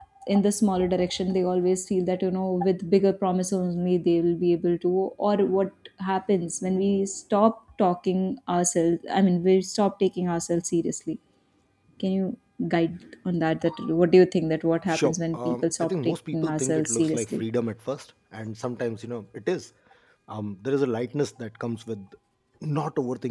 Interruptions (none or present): present